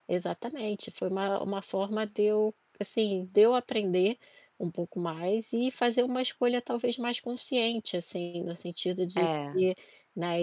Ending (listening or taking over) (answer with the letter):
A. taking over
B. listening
B